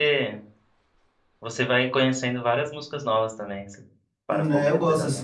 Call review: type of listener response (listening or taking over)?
taking over